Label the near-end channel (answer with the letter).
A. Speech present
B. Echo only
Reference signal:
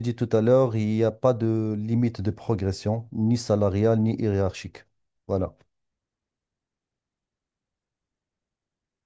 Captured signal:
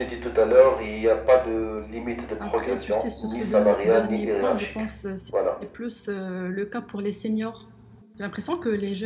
A